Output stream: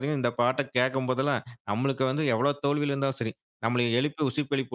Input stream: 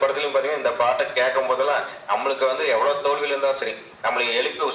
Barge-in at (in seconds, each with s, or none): none